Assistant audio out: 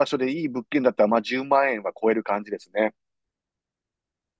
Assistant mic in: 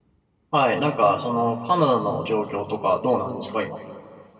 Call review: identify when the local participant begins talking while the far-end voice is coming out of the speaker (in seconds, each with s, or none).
0.5 s